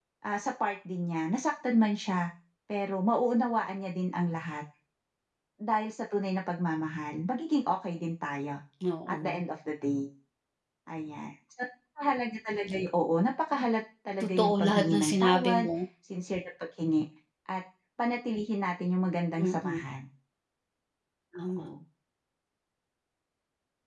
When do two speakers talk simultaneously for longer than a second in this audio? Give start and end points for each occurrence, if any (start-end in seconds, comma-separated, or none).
14.2-15.7